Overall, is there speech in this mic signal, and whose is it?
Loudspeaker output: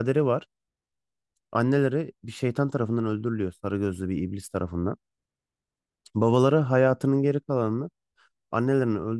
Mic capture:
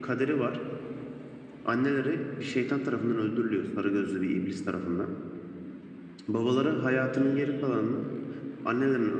echo only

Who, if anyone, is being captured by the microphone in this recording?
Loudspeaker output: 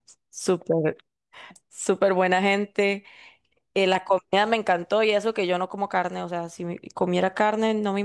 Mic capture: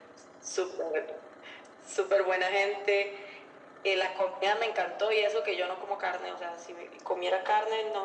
echo only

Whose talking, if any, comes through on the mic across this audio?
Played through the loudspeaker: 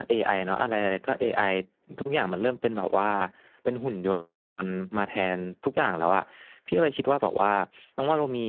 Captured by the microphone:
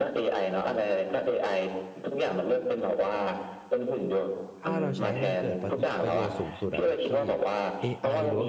both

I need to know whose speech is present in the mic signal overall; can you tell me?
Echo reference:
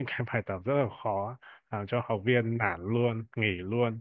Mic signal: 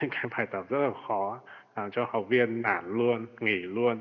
echo only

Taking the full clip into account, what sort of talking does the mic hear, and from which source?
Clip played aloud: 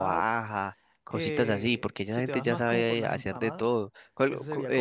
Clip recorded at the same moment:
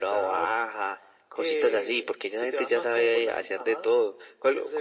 echo only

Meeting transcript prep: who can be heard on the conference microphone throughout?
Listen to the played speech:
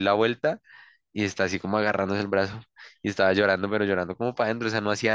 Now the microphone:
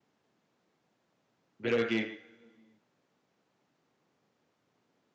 user only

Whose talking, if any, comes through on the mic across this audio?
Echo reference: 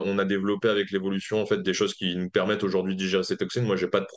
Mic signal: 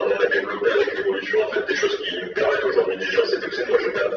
echo only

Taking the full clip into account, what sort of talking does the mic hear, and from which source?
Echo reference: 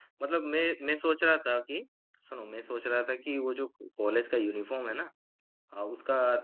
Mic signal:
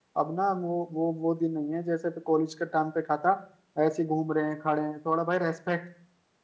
user only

